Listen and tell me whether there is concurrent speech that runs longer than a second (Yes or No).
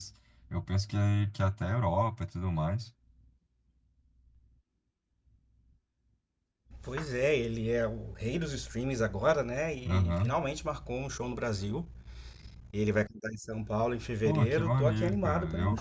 Yes